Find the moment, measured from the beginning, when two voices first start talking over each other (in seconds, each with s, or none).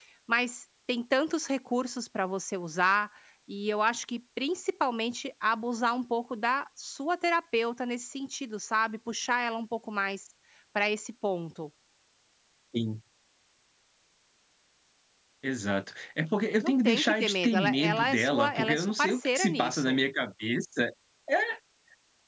16.6 s